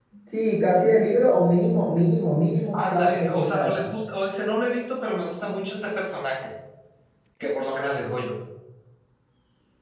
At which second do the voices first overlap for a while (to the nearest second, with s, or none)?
3 s